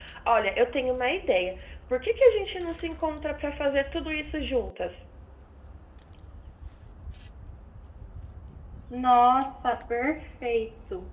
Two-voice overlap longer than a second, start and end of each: none

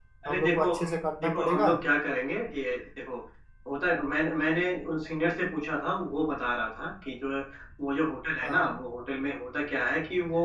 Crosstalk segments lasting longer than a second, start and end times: none

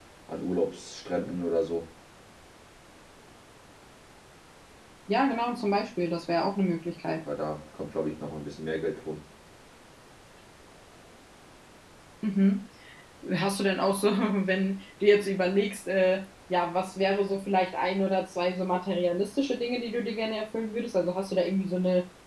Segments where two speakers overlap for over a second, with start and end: none

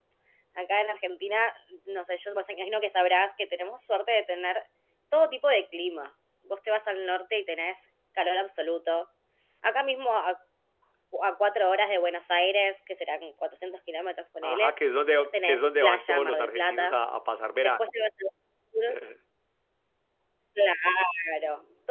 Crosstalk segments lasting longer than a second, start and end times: 15.4-17.0

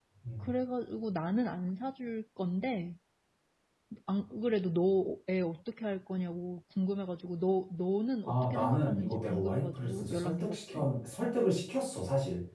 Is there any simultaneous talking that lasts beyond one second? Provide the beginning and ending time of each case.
8.3-10.9

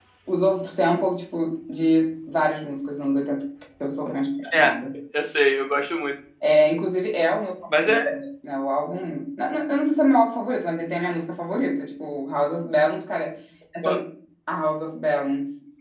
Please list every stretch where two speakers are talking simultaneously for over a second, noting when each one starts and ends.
none

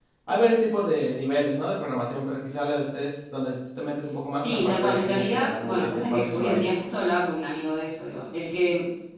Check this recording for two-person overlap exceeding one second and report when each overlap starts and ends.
4.3-6.7

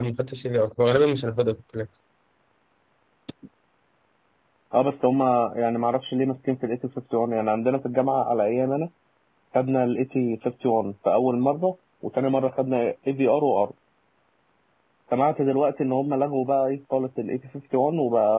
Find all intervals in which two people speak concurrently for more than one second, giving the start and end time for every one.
none

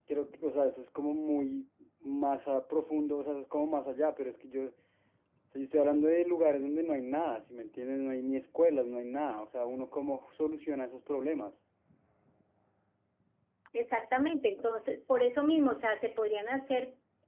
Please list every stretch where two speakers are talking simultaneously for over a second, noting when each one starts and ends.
none

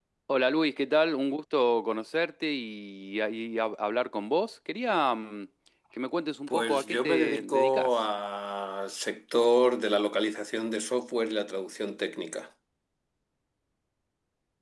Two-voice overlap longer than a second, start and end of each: 6.5-7.9

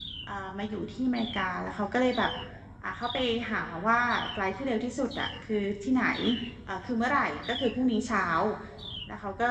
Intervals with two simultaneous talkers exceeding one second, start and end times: none

